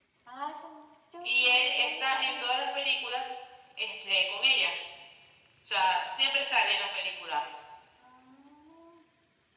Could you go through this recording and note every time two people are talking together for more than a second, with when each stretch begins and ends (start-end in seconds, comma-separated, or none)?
1.2-2.5